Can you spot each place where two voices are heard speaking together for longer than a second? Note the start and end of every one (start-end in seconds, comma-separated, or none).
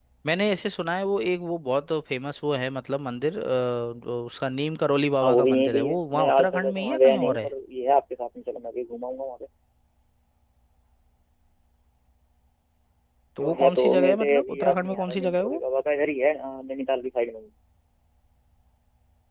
5.2-7.5, 13.4-15.6